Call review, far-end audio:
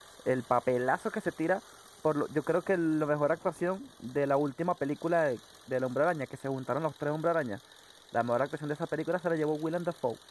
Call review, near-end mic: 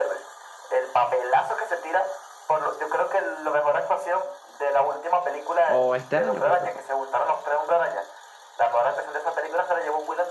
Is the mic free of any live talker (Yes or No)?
No